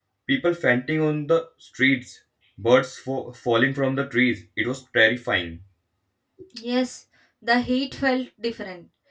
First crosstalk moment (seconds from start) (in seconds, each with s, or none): none